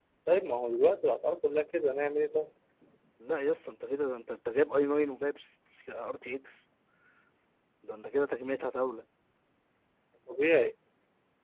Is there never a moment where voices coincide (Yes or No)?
Yes